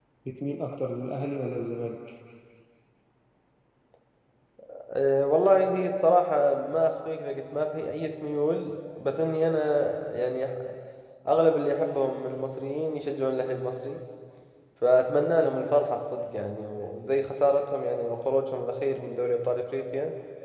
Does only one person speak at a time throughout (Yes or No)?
Yes